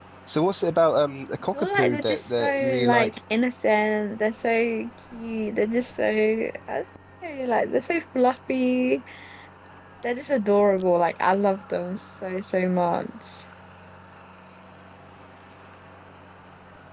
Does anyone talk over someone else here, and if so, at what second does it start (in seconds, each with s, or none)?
1.5 s